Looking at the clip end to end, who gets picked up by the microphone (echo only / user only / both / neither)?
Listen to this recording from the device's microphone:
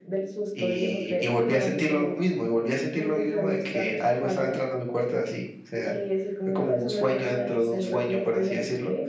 echo only